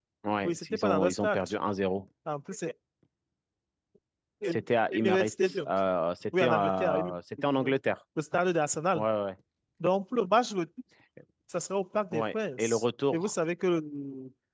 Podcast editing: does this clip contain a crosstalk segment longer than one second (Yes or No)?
Yes